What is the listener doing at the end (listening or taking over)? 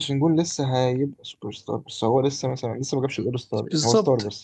taking over